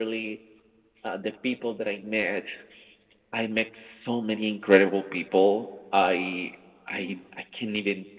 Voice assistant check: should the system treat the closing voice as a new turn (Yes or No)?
No